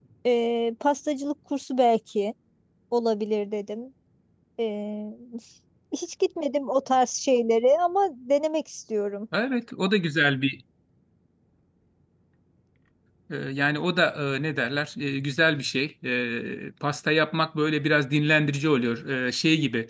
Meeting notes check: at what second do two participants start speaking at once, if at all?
none

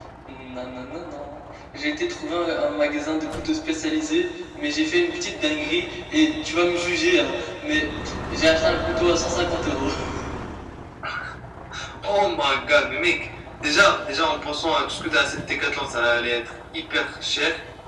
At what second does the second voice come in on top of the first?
none

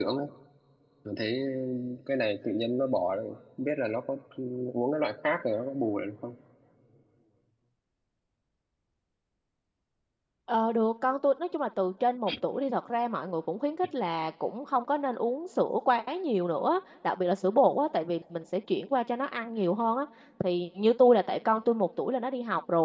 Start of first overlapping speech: none

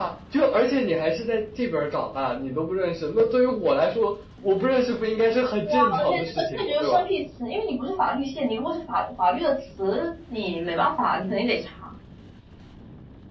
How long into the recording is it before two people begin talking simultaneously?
5.6 s

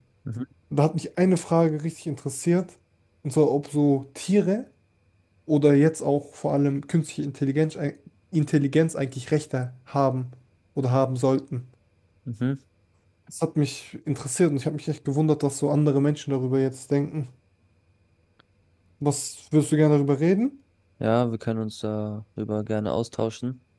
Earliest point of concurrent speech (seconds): none

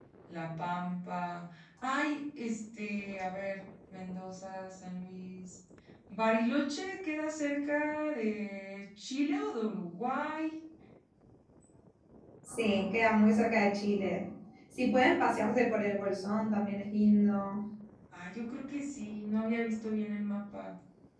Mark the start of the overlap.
none

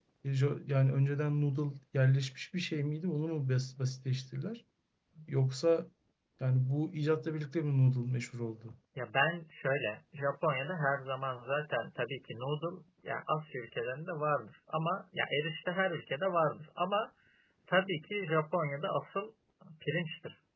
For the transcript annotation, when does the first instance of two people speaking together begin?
none

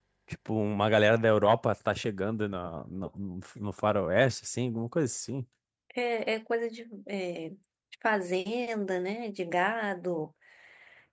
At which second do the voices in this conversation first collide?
none

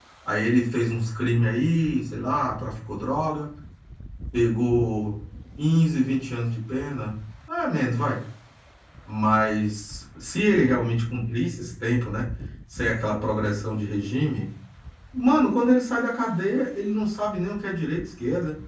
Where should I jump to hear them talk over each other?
none

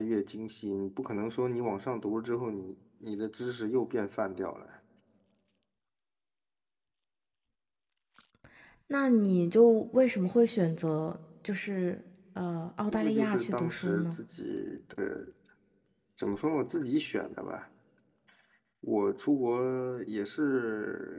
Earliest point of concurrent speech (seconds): 12.9 s

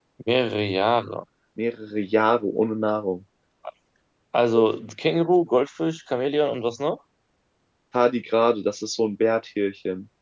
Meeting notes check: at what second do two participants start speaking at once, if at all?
none

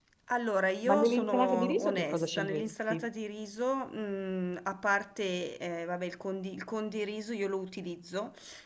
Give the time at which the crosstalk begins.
0.8 s

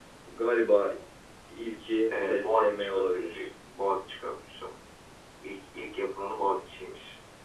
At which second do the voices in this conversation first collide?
2.1 s

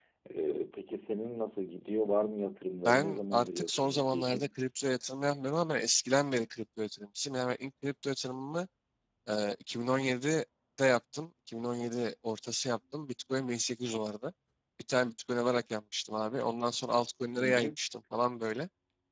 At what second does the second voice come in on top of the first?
2.9 s

